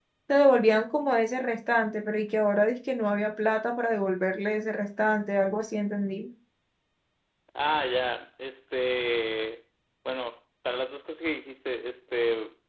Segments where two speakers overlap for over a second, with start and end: none

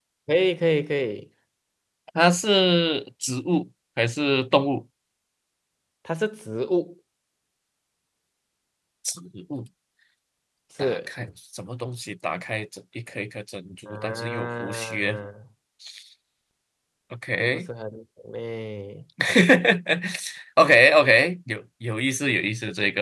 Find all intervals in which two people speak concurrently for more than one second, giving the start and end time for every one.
13.9-15.2

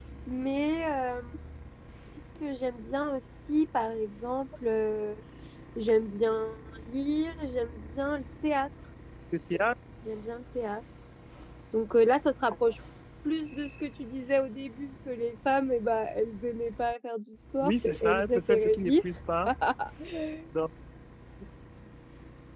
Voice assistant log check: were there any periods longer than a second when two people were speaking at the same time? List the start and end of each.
17.6-18.9

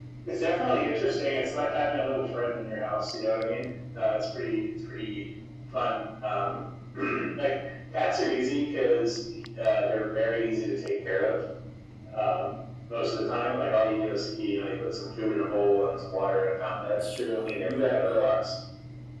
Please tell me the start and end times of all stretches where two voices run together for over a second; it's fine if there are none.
16.8-18.3

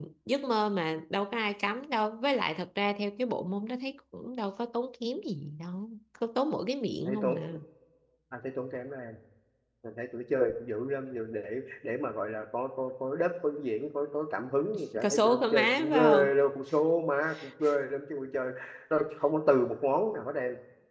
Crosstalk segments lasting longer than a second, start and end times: 15.0-16.3

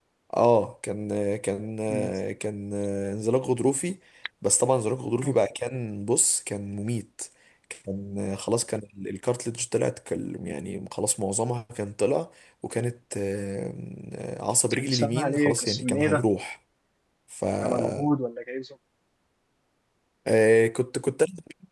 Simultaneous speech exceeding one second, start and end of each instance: 14.7-16.2

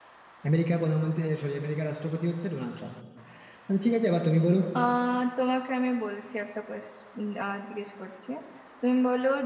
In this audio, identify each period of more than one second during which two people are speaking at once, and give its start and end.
none

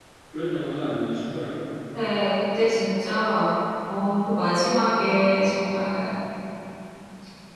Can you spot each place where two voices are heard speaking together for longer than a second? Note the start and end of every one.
none

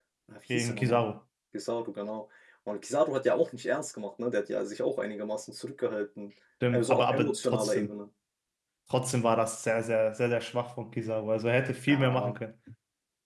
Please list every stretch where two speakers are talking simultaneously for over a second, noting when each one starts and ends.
6.7-7.9

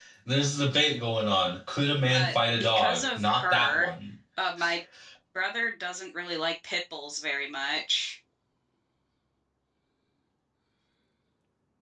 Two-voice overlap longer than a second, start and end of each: 2.0-3.9

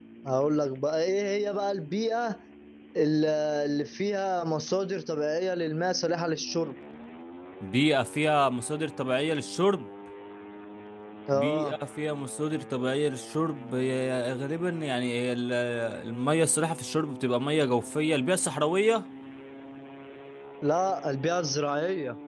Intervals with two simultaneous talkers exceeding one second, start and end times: none

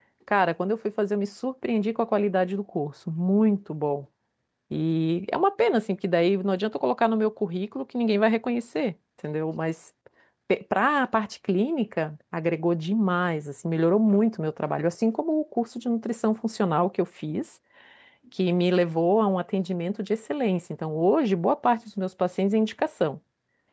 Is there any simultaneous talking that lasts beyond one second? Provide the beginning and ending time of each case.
none

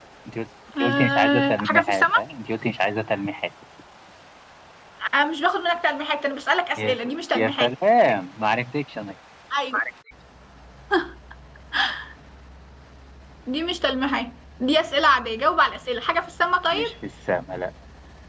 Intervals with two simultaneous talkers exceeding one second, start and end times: 0.8-2.2

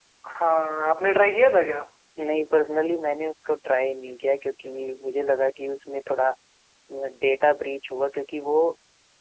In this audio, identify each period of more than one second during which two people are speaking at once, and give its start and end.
none

